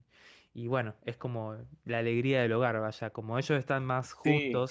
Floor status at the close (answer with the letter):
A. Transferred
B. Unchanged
B